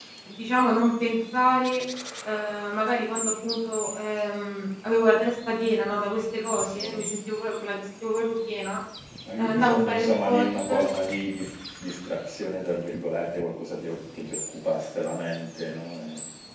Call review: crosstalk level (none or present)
present